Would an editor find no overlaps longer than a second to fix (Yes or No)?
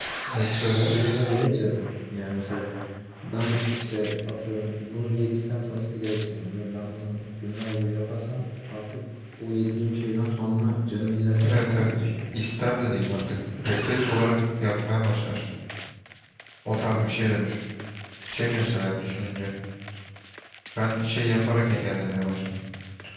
Yes